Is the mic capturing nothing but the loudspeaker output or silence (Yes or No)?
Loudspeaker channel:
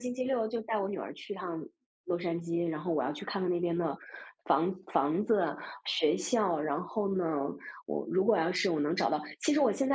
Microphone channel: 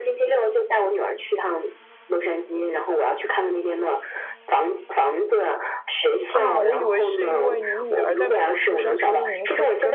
No